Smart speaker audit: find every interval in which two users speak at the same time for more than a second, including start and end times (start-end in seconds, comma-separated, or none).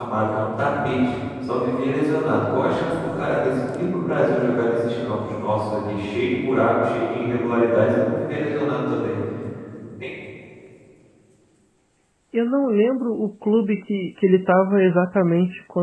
none